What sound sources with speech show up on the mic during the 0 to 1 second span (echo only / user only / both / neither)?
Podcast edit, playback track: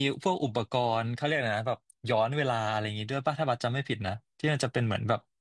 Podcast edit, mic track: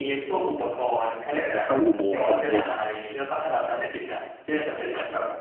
echo only